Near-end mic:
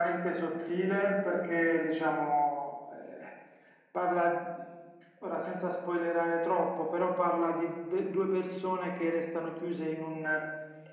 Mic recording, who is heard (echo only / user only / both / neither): echo only